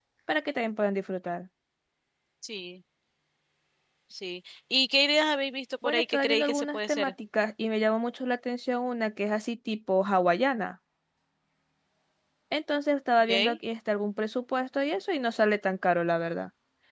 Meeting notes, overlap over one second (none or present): present